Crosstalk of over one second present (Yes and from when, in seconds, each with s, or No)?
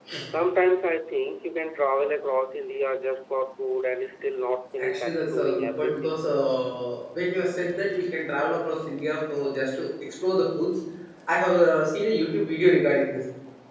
Yes, from 4.8 s